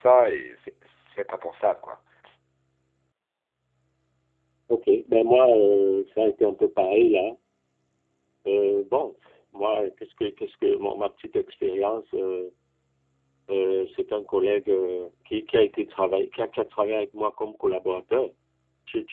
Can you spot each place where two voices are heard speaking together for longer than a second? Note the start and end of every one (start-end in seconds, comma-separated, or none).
none